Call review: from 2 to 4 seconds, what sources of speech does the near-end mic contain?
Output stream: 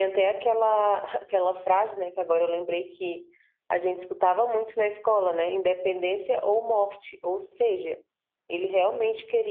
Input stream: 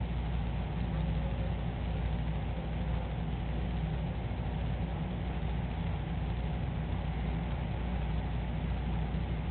neither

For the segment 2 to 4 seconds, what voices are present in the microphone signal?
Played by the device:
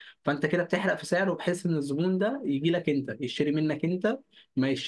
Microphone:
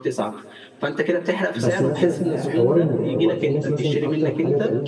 both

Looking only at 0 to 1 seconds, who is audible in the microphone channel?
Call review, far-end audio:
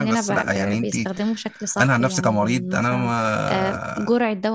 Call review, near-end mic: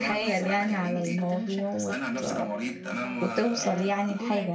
both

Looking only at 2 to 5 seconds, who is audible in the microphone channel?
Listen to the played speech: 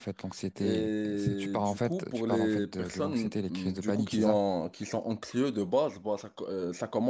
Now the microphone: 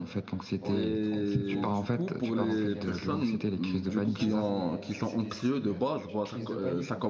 both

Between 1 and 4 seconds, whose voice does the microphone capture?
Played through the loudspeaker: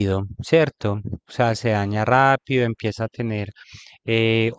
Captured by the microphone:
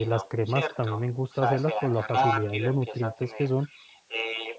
both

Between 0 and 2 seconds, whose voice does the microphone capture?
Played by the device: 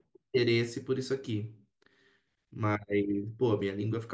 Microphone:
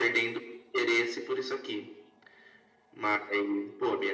echo only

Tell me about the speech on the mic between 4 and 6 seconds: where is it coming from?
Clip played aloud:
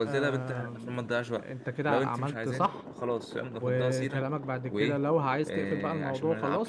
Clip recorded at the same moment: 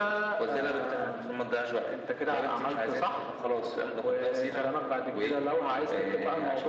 echo only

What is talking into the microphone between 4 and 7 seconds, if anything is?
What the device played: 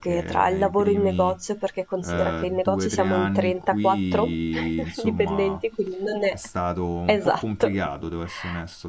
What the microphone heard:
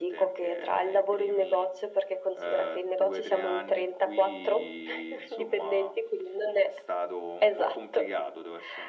echo only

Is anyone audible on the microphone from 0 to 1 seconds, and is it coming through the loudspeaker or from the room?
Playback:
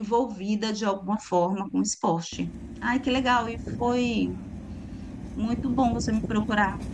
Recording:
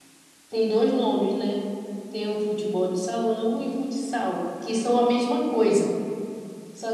user only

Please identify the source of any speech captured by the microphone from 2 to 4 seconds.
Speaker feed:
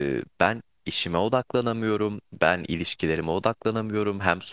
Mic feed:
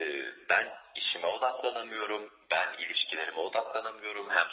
echo only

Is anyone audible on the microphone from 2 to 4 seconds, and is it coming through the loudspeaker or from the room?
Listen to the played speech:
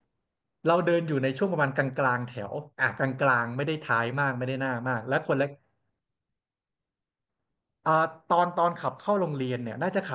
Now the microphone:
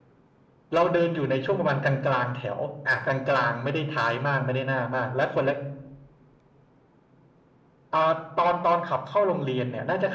echo only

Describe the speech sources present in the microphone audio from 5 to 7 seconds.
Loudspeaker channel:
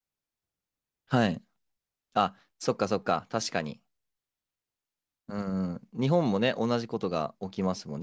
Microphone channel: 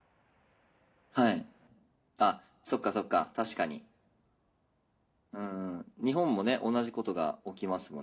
echo only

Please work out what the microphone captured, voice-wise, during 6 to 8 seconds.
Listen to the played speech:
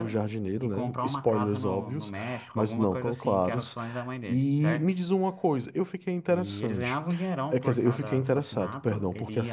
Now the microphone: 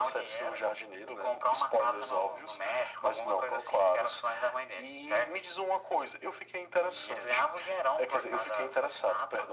echo only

